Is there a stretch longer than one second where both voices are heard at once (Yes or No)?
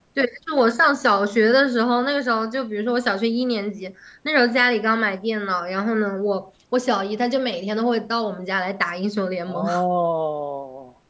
No